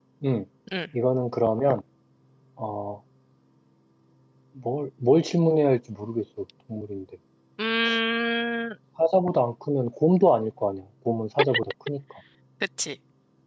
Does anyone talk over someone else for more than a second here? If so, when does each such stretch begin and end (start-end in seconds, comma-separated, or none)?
none